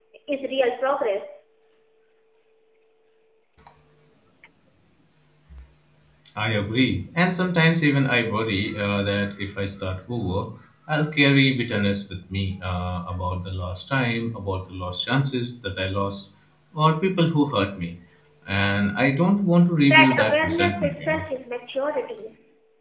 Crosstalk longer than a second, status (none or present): present